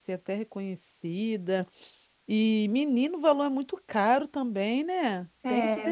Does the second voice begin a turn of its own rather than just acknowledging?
Yes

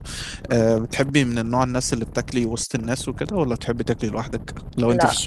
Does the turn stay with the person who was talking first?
No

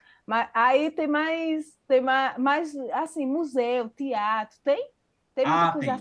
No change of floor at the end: No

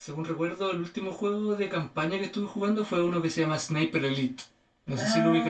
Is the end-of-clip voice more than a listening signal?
Yes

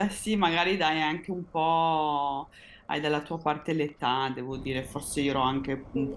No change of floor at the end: Yes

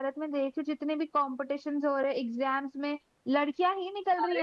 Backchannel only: No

